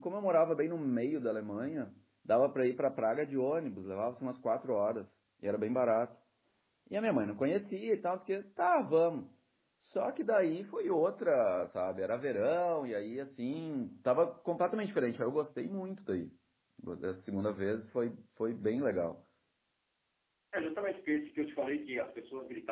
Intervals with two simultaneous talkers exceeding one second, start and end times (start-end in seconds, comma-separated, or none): none